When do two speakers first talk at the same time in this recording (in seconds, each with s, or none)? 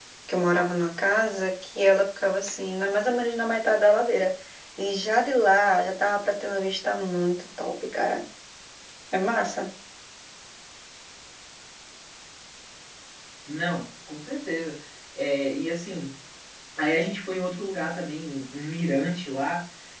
none